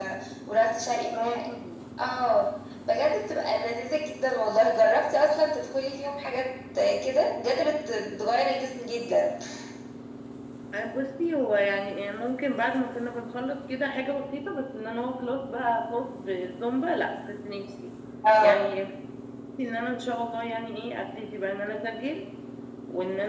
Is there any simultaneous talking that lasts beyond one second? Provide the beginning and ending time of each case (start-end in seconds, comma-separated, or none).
none